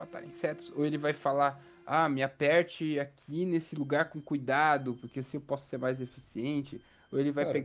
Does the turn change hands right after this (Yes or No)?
No